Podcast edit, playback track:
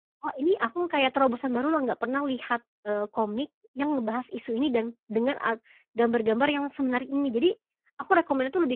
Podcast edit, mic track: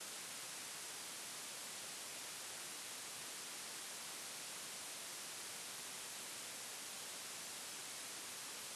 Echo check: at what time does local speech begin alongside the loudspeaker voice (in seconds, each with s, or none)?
none